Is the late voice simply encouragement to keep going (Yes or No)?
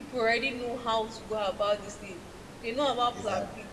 Yes